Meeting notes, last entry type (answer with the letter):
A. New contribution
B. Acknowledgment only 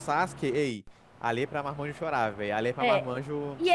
A